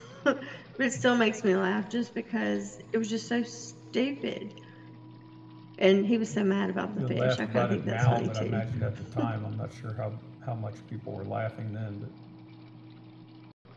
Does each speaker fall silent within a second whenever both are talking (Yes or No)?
No